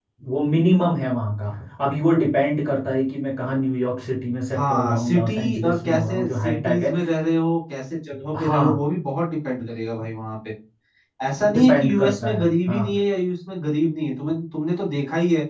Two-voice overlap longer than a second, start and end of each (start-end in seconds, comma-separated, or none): 4.5-6.9, 11.5-13.0